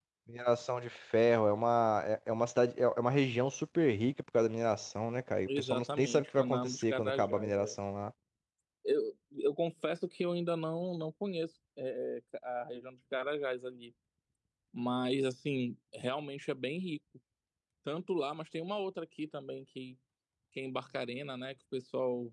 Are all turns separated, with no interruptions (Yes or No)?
No